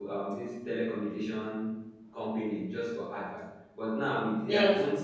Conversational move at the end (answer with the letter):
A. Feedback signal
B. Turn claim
A